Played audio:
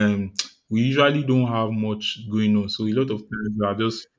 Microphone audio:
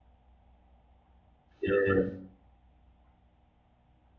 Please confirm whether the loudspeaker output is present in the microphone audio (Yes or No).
No